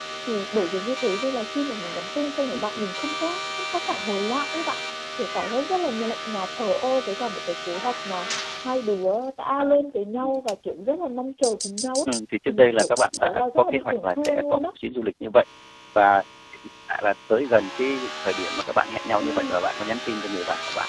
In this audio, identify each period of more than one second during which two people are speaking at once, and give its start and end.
12.5-14.7

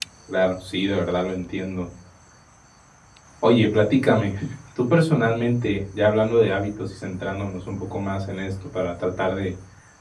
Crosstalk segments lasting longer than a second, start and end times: none

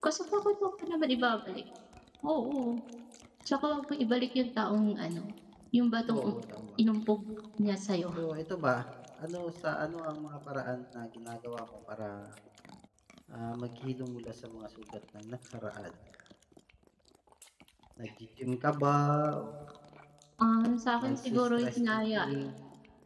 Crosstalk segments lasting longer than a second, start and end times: 21.0-22.2

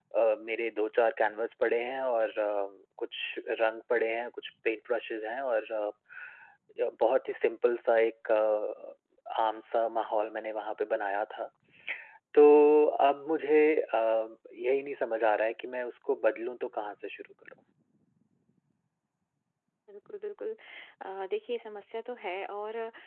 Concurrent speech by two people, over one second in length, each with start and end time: none

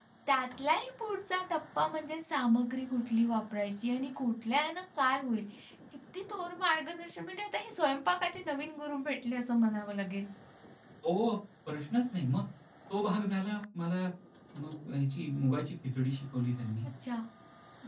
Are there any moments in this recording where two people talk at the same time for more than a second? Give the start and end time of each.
none

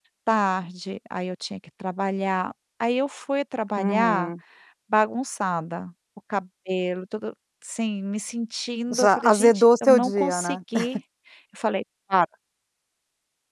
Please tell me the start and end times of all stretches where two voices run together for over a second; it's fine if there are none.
8.9-10.6

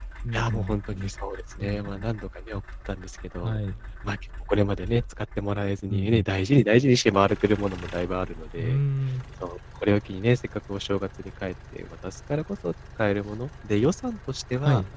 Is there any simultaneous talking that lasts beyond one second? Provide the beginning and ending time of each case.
none

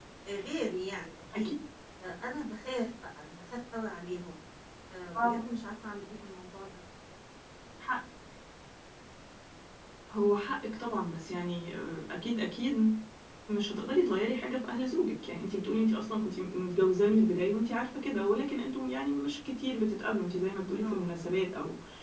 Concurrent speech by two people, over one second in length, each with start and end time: none

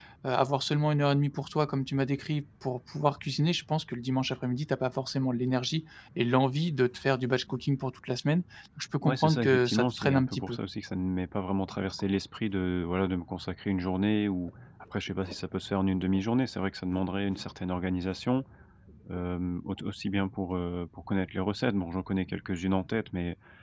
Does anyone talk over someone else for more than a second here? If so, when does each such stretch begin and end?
9.0-10.6

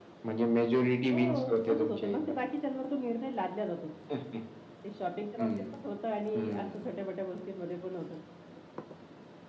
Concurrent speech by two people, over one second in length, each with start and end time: 1.1-2.4

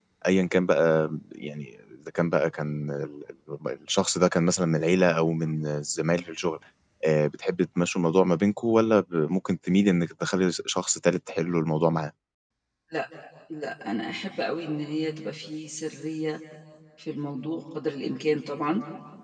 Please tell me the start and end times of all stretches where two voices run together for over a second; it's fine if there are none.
none

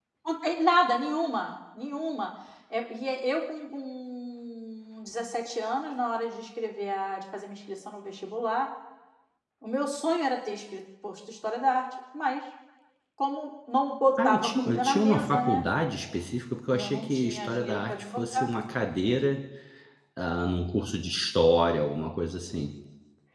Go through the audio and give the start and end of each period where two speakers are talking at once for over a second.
14.2-15.6, 16.7-18.5

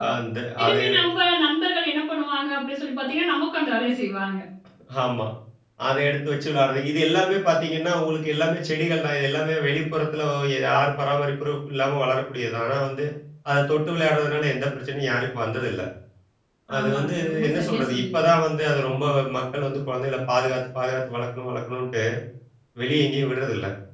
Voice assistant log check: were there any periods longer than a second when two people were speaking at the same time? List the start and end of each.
16.8-18.2

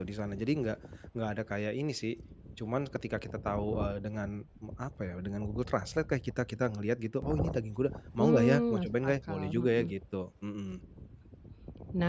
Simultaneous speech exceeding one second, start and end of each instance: 8.2-9.9

